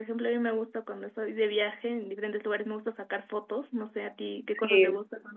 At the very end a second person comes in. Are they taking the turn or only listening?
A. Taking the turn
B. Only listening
A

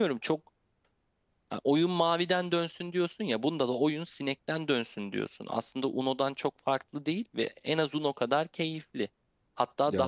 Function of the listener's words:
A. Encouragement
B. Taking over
A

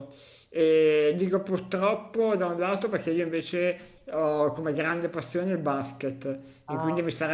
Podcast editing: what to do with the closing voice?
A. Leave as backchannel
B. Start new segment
A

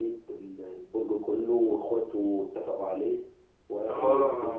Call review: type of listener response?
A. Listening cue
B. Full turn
B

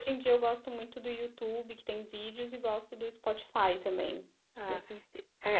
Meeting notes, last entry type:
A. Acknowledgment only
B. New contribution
B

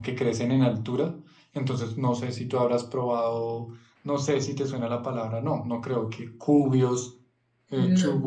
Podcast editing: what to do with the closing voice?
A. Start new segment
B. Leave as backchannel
B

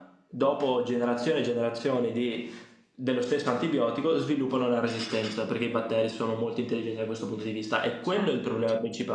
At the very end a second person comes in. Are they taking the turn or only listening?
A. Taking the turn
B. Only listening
B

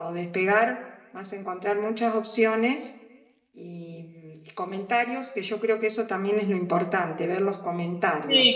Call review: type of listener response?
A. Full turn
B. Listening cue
A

